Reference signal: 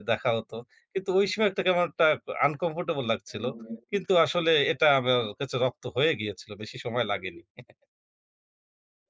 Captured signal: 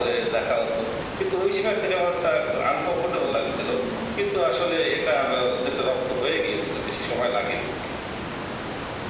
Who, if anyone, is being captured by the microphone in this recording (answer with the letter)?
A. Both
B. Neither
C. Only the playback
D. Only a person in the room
C